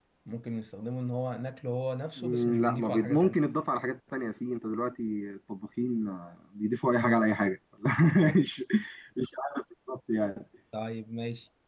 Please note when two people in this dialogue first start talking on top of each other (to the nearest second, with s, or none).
2 s